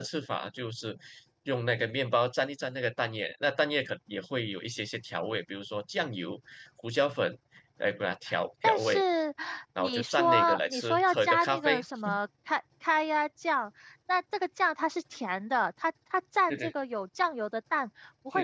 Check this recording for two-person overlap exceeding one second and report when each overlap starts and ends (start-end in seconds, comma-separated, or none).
9.8-11.8